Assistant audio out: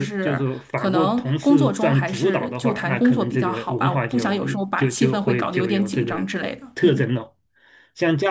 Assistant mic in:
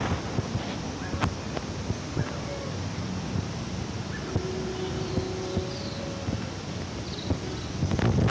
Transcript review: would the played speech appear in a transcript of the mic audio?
No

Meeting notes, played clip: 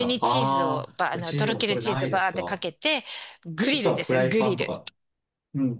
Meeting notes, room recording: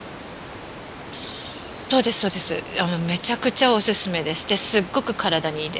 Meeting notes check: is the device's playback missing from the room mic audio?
Yes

